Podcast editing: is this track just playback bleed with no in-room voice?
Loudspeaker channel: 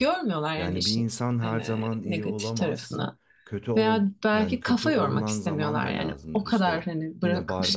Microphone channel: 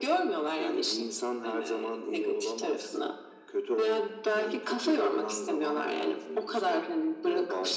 Yes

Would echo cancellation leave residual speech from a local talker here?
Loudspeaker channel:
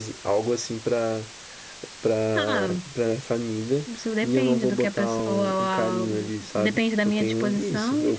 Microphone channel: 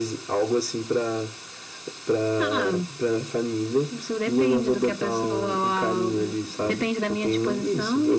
No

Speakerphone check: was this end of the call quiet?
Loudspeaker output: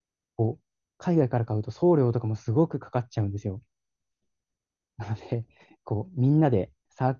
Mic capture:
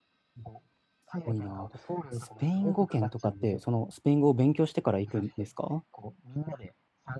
No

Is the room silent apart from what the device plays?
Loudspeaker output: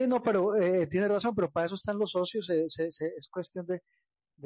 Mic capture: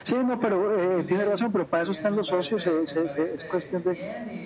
No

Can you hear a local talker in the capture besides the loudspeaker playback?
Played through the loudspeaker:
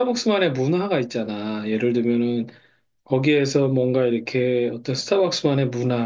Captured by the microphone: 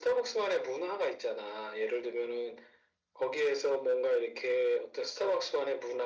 No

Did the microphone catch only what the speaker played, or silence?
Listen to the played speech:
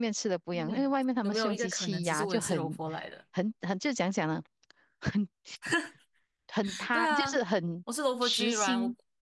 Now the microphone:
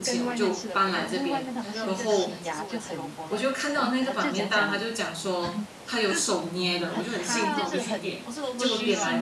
No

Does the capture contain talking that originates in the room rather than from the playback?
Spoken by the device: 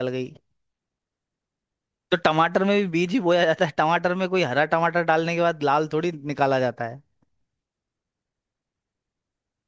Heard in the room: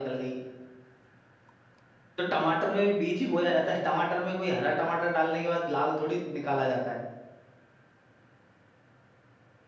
No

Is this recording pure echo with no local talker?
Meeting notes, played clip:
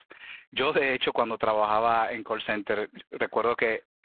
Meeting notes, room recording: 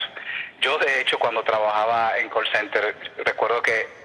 Yes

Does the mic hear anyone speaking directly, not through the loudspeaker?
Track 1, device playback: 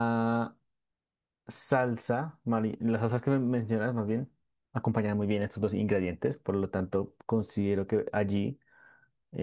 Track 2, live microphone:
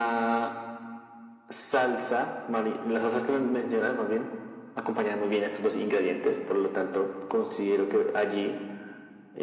No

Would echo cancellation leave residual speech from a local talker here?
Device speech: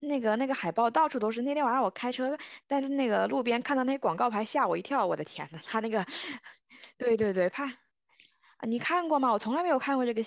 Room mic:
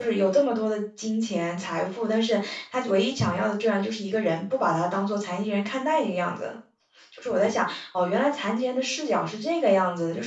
Yes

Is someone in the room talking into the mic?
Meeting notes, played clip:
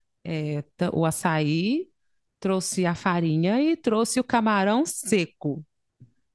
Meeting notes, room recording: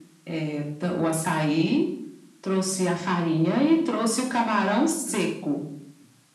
No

